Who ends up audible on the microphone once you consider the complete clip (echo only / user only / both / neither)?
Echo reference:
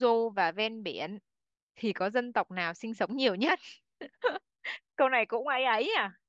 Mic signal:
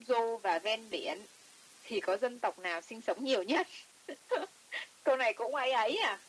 echo only